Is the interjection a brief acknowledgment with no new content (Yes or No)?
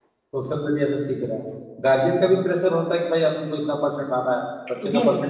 Yes